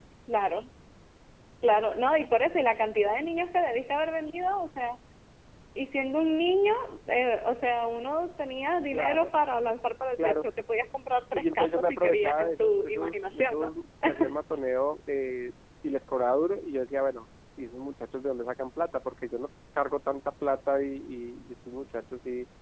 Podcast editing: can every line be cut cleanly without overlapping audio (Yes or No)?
No